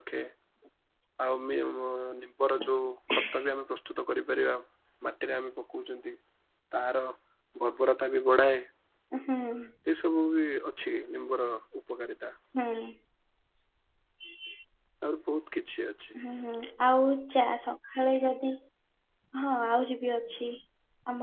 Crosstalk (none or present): none